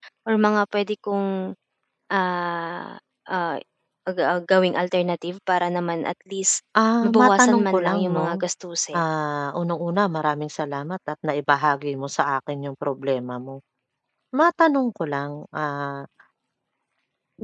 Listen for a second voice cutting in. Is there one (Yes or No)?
Yes